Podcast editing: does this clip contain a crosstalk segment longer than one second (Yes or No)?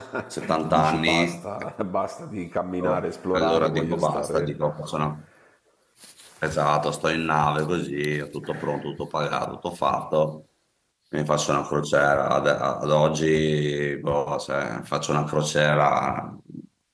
Yes